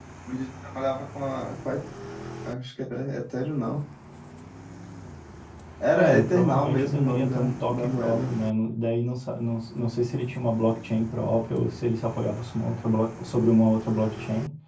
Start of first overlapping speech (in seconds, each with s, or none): 5.9 s